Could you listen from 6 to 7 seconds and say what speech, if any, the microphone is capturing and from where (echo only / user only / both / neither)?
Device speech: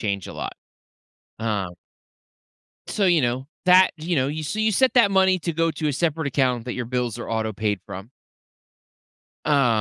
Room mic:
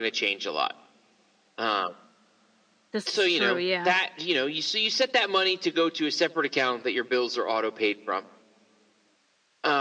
echo only